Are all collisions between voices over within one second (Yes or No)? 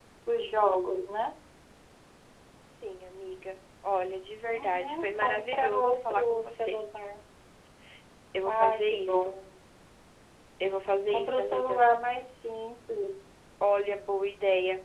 No